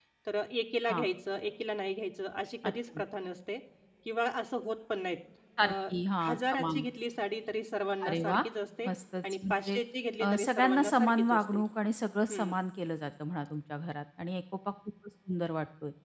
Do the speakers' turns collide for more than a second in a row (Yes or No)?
Yes